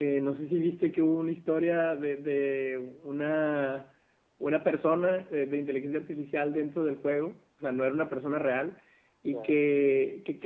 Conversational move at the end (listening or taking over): listening